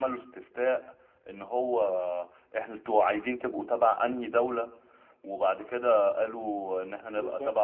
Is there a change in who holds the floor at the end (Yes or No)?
No